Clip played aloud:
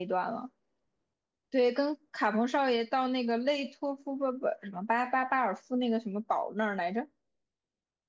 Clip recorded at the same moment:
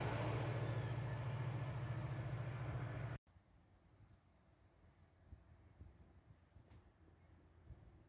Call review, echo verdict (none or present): none